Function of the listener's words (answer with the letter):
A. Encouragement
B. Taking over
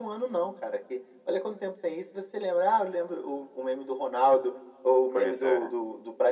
A